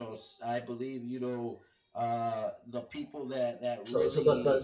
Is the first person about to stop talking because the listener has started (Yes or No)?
Yes